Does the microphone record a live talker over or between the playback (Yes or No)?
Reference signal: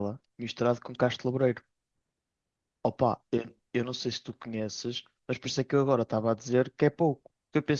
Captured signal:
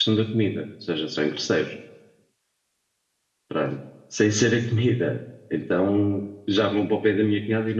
Yes